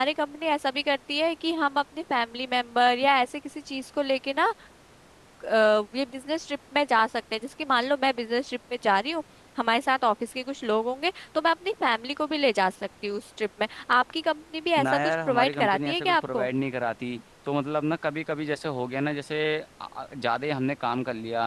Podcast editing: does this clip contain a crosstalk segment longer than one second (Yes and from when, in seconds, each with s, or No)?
Yes, from 14.8 s